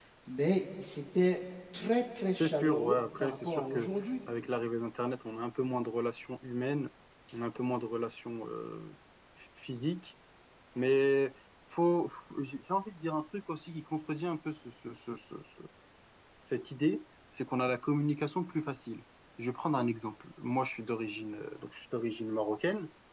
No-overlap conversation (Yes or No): No